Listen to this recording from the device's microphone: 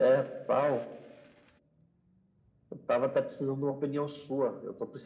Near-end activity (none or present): none